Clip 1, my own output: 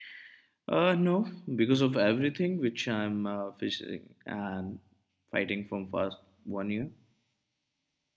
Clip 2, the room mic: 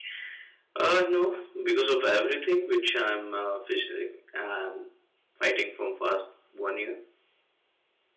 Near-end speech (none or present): none